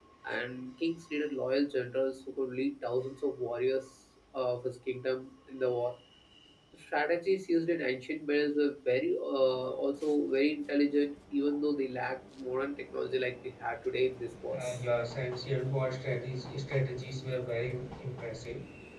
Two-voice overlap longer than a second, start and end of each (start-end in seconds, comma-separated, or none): none